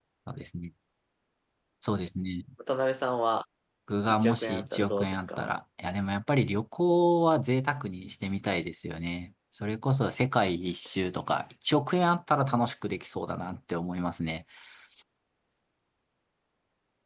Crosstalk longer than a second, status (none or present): present